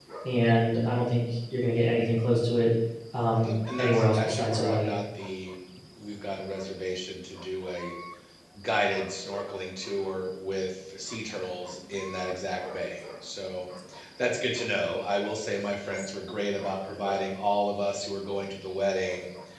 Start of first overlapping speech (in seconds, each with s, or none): 3.4 s